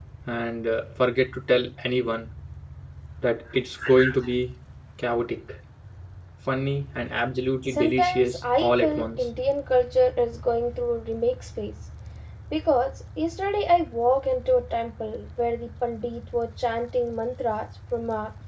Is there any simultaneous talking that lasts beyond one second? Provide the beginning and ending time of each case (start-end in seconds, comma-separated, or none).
7.7-9.2